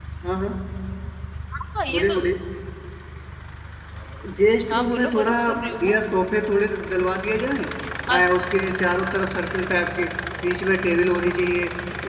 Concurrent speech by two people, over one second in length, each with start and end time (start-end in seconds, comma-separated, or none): 4.7-5.9